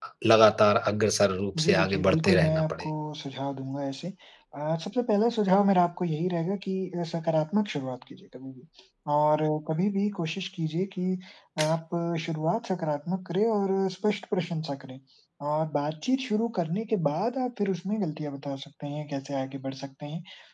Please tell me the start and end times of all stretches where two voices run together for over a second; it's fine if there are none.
1.6-2.9

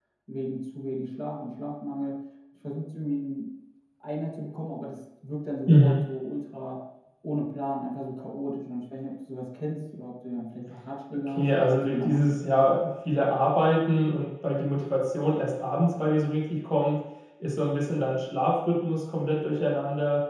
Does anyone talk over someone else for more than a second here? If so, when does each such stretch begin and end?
11.3-12.7

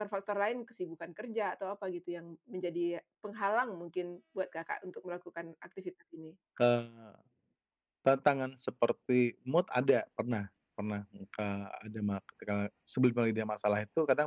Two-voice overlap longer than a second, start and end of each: none

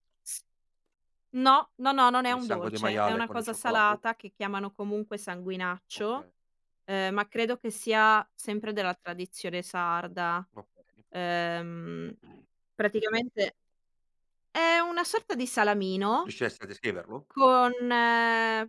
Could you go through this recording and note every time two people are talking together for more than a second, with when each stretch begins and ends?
2.3-4.0

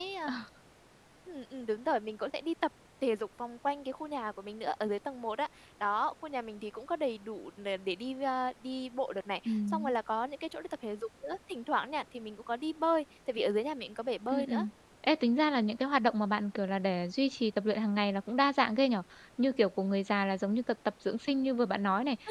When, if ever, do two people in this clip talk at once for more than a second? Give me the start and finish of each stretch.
none

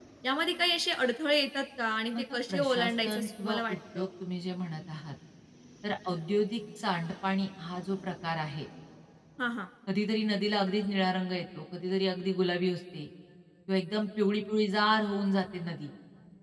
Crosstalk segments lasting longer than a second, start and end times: 2.1-4.1

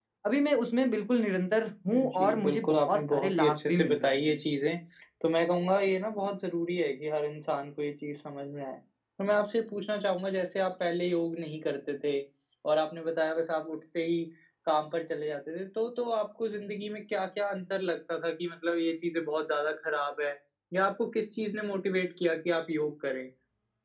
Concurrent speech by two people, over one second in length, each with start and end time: 1.9-4.2

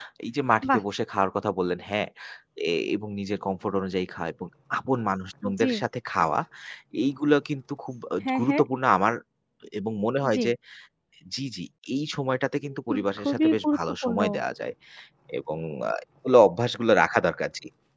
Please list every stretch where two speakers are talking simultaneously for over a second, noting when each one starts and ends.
12.9-14.2

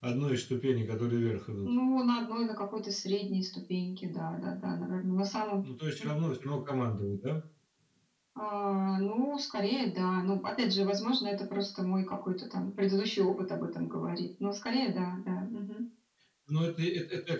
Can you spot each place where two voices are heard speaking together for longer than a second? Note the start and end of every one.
none

